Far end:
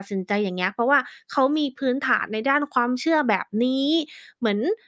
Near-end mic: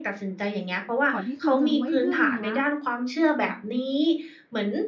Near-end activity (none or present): present